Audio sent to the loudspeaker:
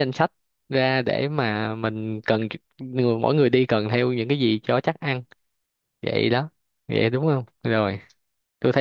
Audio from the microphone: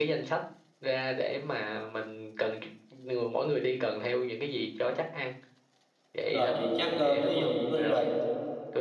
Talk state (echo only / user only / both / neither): both